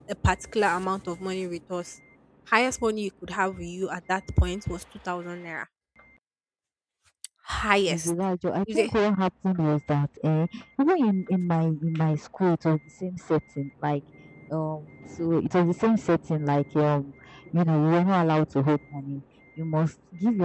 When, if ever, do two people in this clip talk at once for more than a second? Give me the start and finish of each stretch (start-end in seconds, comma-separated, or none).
none